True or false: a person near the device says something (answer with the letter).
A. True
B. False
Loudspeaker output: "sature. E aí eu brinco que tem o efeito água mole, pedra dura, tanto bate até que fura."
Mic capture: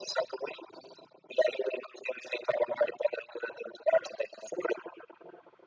B